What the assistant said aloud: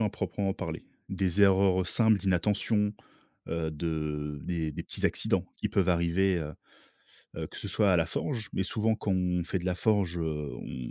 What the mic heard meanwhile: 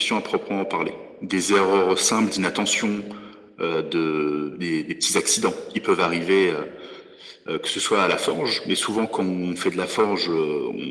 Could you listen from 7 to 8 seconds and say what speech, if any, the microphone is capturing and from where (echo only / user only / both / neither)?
echo only